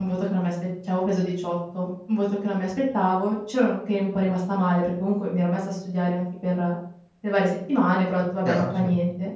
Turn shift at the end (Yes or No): No